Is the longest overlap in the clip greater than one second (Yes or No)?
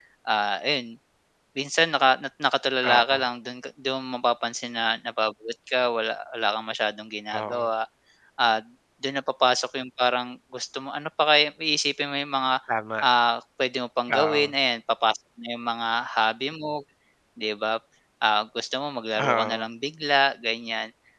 No